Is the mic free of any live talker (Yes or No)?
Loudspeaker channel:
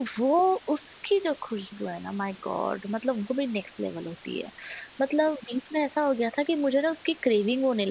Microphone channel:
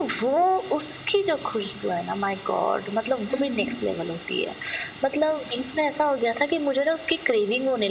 No